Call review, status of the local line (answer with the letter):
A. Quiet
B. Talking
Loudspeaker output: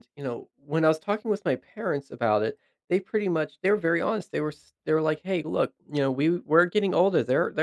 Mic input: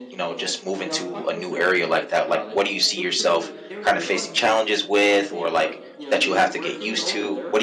B